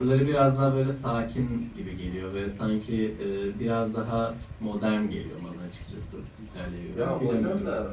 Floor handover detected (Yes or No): Yes